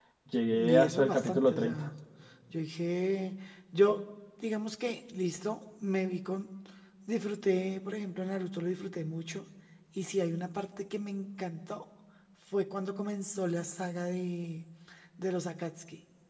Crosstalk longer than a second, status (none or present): present